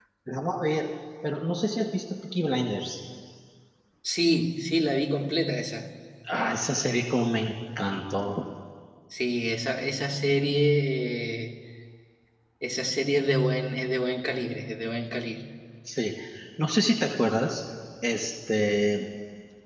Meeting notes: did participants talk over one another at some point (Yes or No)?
No